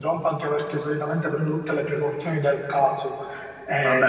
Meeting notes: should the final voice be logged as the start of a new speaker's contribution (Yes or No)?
Yes